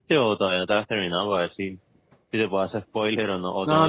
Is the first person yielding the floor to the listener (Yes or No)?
Yes